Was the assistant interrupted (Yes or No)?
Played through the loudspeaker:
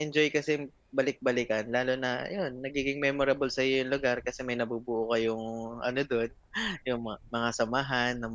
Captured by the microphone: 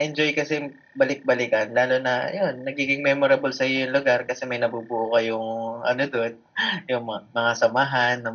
No